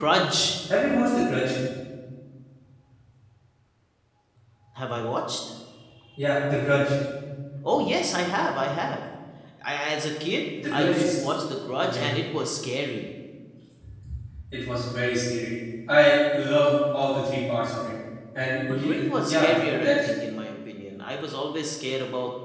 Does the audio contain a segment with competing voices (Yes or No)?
Yes